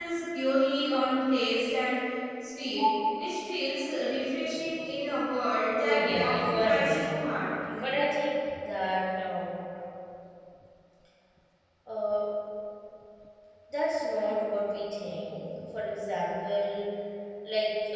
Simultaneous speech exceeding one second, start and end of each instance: 5.8-7.1

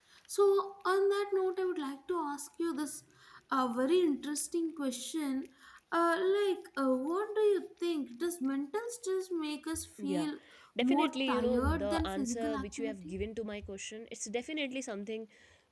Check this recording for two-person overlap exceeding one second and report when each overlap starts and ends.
10.8-13.1

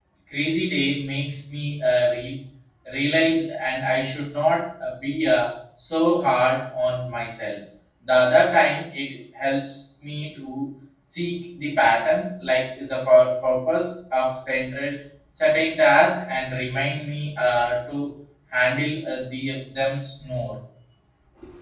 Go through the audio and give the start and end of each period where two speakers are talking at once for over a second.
none

